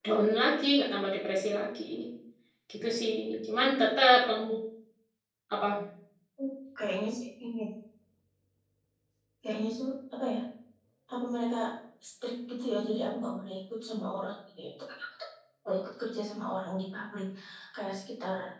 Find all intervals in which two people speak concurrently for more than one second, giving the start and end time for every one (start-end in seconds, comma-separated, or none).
none